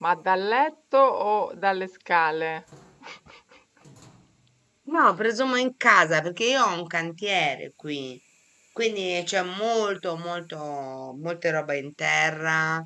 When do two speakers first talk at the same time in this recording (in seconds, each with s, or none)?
none